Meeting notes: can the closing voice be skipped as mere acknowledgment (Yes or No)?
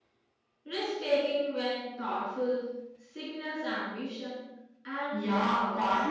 No